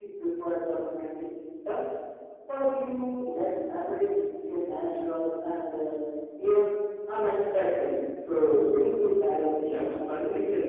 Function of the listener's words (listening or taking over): taking over